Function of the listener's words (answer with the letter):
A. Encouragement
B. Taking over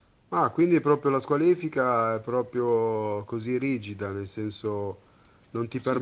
B